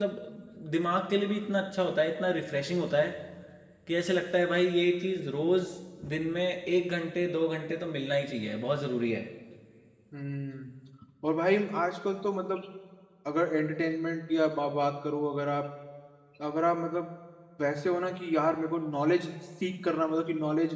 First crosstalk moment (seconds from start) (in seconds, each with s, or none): none